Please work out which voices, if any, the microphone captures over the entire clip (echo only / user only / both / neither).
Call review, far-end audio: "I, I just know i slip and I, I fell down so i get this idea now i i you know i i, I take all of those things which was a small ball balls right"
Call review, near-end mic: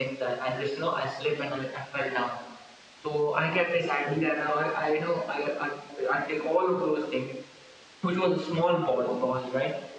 echo only